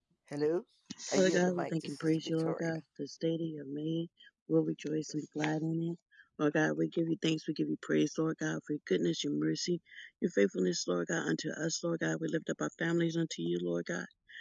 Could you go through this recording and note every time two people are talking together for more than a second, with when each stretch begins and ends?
1.1-2.7

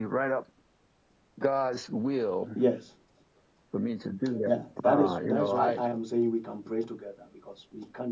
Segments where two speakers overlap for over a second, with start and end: 4.5-5.8

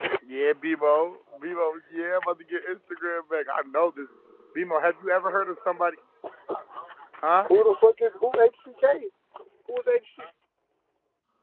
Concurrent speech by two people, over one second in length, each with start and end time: none

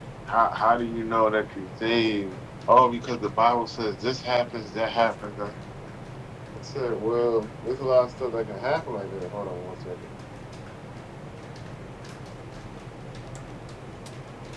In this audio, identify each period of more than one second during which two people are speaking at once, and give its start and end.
none

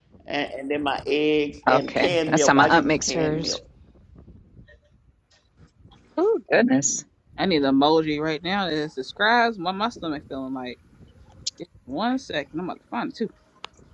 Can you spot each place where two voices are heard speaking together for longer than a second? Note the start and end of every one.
1.7-3.6

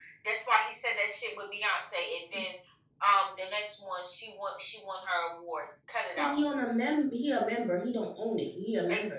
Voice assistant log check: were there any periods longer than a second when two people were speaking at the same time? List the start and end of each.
none

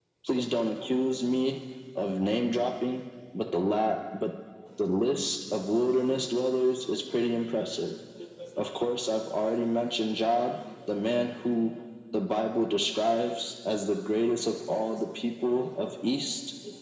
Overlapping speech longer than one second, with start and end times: none

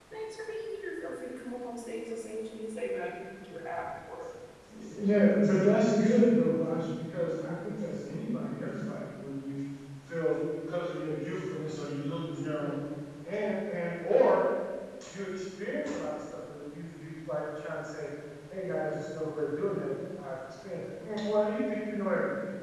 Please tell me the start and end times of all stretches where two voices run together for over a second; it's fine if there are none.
none

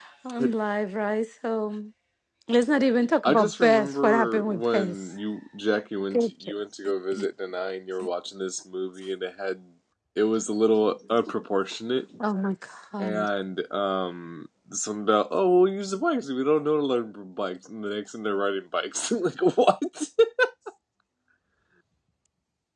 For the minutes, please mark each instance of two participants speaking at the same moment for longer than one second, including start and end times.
3.2-5.0

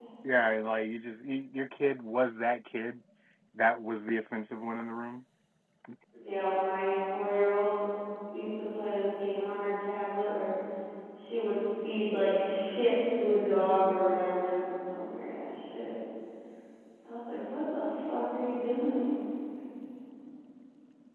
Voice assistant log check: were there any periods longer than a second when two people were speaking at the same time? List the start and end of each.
none

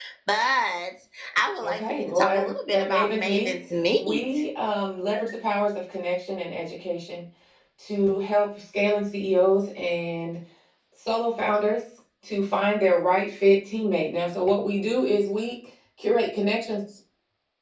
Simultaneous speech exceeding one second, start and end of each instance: 1.6-3.5

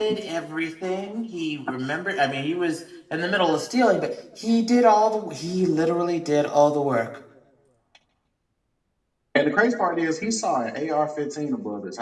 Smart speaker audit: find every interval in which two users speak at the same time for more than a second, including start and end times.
none

